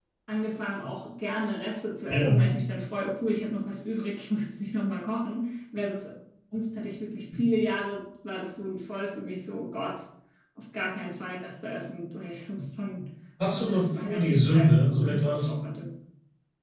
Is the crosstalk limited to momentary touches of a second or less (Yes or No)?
No